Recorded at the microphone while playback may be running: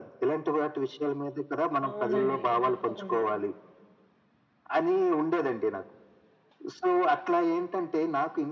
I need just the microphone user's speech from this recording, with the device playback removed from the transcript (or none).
అవునండి. తప్పకుండా.